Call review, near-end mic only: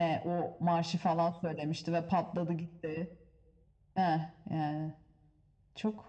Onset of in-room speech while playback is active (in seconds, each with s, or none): none